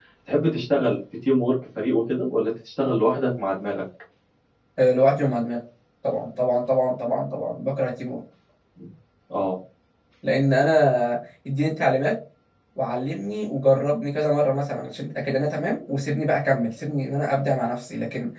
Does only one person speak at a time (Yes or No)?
Yes